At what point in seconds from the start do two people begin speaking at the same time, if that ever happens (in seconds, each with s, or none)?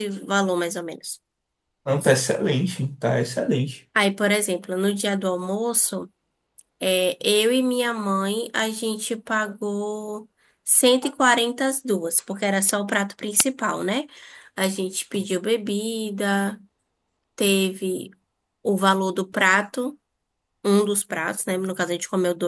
none